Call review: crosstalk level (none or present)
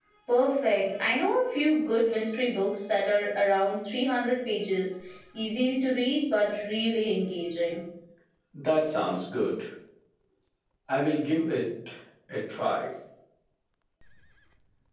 none